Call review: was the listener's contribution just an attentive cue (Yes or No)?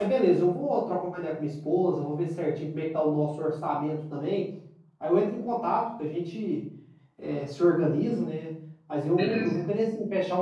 Yes